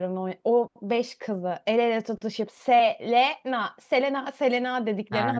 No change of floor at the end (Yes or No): No